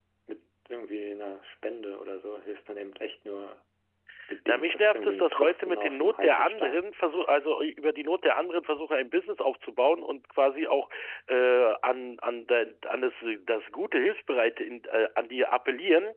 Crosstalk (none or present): present